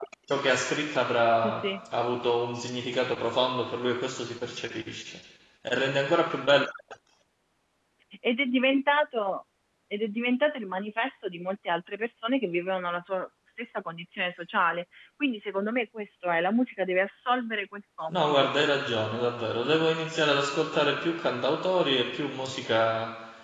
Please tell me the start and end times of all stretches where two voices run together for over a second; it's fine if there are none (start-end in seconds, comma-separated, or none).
none